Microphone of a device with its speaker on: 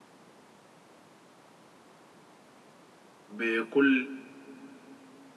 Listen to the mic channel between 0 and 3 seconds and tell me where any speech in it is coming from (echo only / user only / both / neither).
neither